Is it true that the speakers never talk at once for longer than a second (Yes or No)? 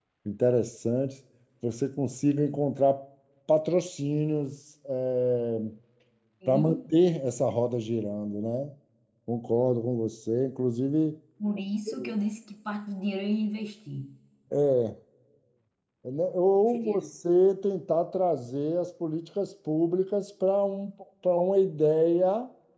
Yes